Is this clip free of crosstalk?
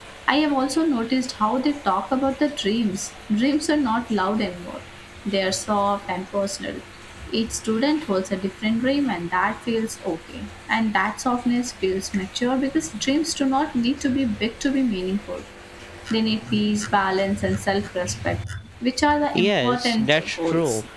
No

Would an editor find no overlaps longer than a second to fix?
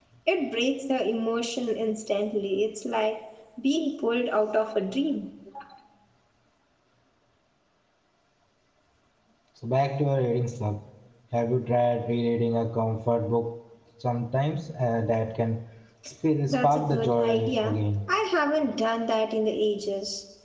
No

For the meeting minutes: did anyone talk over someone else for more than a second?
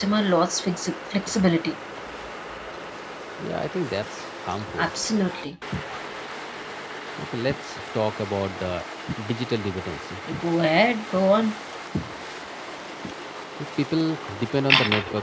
No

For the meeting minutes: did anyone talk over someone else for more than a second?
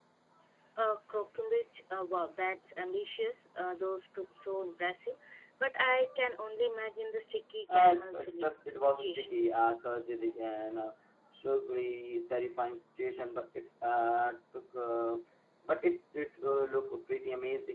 Yes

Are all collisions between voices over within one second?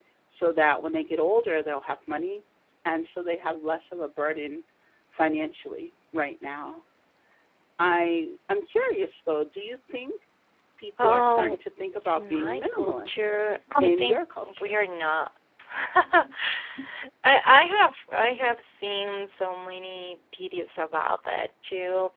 No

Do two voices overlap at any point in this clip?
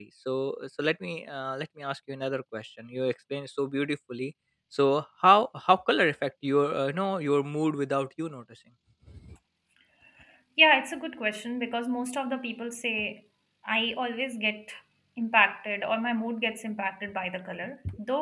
No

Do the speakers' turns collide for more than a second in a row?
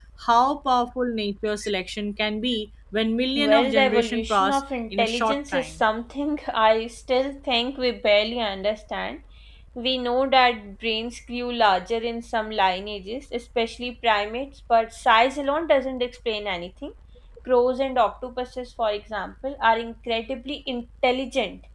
Yes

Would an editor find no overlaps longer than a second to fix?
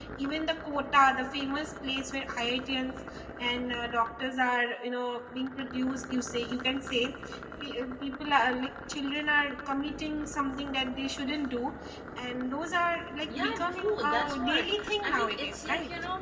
No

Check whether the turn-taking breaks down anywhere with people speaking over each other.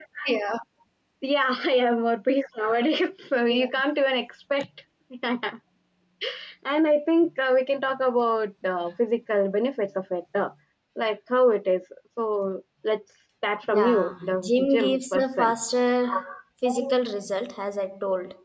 Yes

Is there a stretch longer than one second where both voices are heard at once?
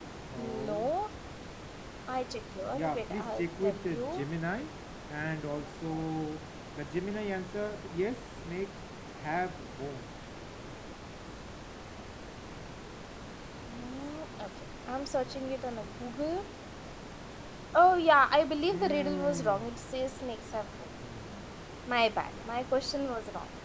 Yes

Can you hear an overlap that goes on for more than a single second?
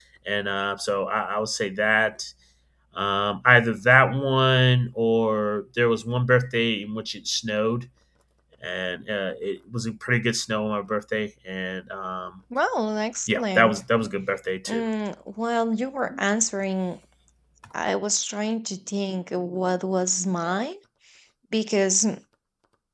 No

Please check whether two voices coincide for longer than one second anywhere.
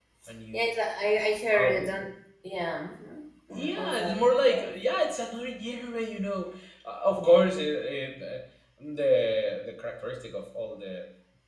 Yes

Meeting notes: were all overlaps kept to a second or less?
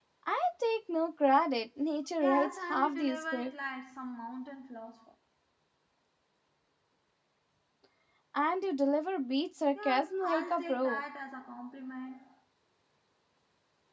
No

